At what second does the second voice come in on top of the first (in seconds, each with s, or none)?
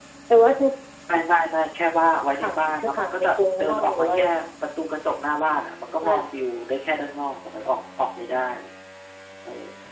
2.4 s